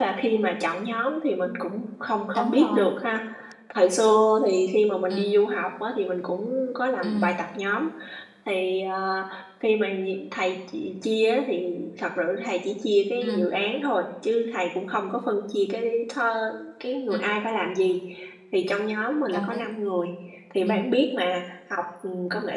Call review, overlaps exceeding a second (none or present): none